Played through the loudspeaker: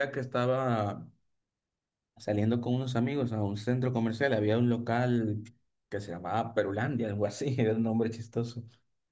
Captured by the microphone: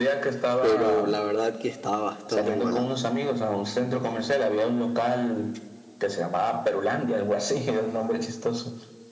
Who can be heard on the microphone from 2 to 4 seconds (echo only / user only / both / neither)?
both